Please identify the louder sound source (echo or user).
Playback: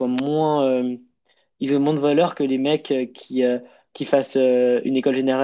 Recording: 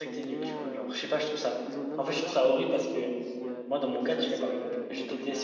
user